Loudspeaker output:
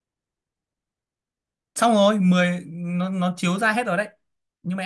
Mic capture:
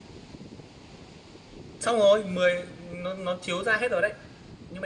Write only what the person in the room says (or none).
none